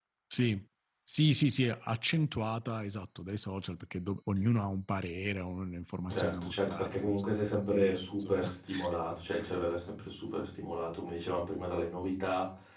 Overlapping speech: Yes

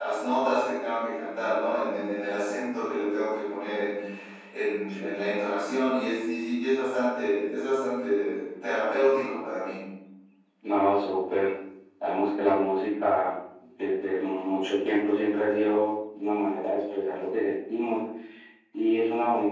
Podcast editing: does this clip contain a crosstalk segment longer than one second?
No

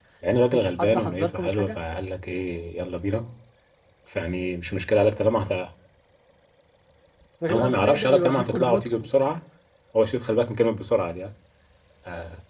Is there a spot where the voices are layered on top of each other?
Yes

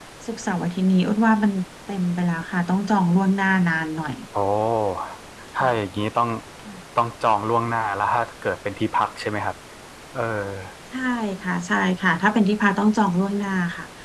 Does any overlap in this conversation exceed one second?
No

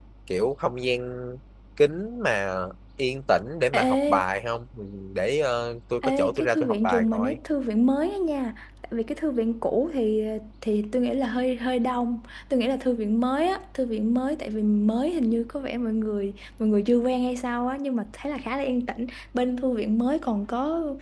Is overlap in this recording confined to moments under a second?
No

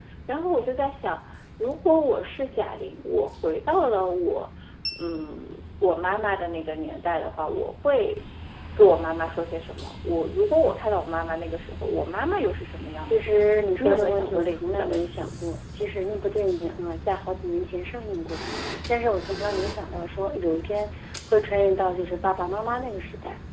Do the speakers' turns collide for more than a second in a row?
Yes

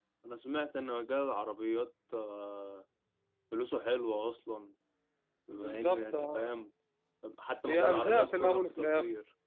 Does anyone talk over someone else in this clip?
Yes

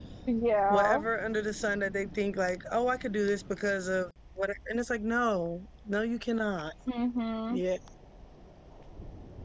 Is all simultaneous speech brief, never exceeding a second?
Yes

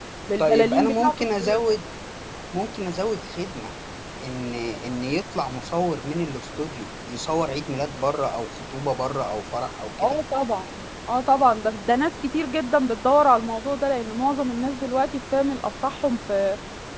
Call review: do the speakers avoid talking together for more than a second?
No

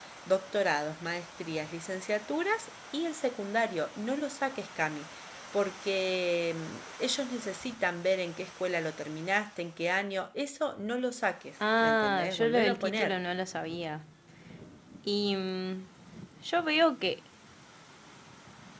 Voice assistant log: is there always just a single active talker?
No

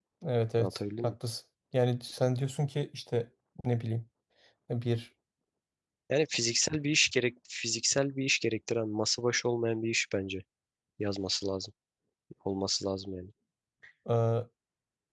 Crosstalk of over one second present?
No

